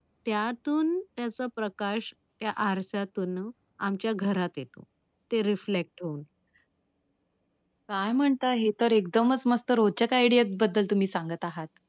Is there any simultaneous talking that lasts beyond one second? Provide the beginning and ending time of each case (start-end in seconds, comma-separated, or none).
none